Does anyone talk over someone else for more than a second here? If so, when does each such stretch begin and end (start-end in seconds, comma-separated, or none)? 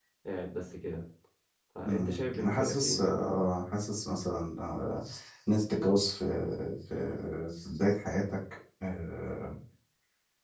1.8-3.1